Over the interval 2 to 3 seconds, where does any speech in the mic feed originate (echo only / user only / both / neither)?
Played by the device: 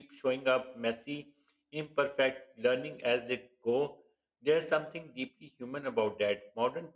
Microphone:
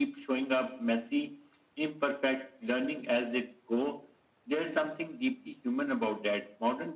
echo only